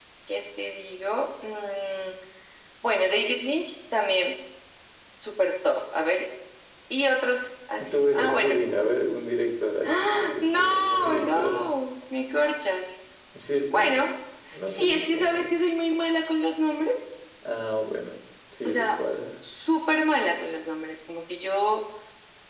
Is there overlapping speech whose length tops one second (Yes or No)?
Yes